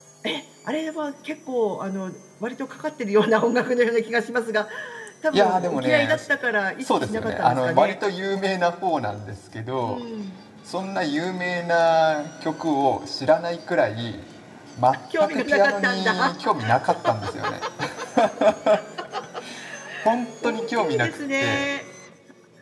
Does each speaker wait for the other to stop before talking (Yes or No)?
No